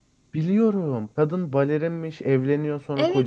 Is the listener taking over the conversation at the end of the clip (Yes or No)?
No